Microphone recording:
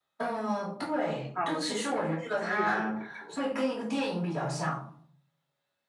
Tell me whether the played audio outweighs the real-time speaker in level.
Yes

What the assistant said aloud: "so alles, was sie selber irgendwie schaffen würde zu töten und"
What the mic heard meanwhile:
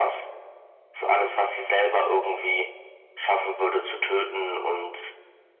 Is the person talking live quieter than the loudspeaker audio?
Yes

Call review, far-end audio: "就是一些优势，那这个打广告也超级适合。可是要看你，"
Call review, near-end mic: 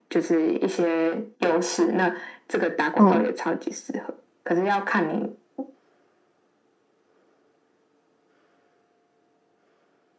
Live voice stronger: Yes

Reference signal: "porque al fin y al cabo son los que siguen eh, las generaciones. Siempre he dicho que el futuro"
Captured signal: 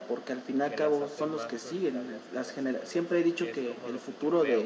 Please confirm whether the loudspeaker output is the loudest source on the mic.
Yes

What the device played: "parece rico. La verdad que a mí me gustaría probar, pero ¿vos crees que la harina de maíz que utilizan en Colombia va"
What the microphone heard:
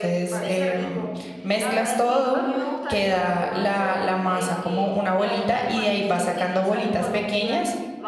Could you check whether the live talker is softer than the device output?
No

